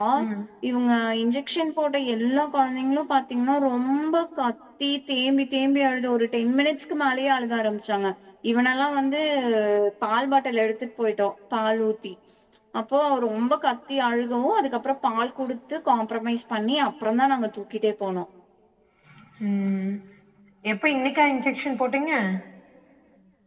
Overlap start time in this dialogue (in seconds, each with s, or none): none